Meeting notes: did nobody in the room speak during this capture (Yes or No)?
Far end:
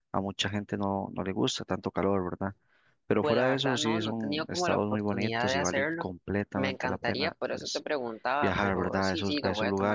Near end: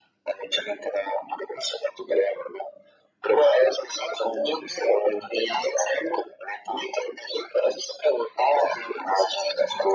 Yes